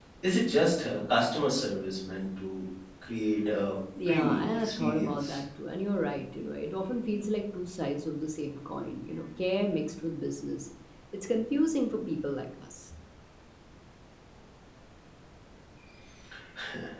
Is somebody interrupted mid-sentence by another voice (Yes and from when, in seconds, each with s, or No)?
Yes, from 4.0 s